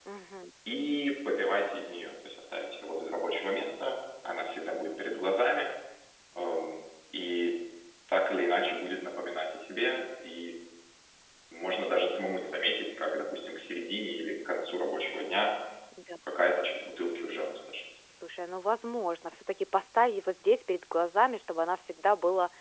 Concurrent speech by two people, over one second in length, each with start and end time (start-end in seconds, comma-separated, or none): none